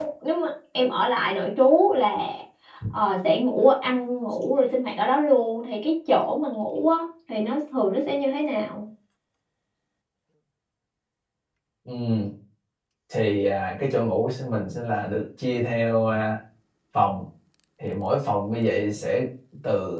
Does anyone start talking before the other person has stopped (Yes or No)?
No